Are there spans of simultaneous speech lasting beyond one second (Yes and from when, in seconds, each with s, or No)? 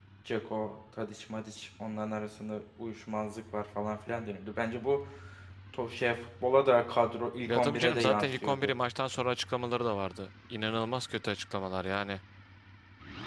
Yes, from 7.5 s